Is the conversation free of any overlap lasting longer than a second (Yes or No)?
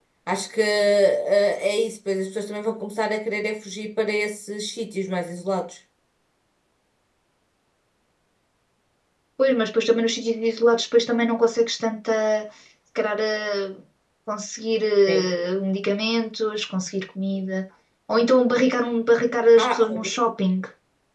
Yes